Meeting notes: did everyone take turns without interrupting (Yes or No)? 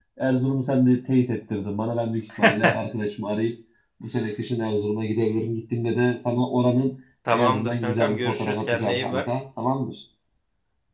No